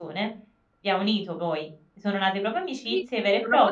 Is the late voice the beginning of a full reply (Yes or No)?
Yes